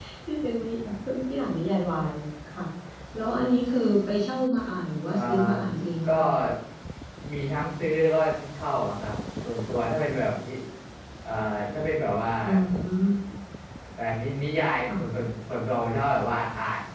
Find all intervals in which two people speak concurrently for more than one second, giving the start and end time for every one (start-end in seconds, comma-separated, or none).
none